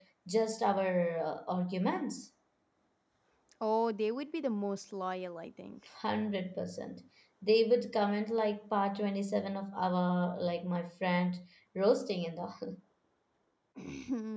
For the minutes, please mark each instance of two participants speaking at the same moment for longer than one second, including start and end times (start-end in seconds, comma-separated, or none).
none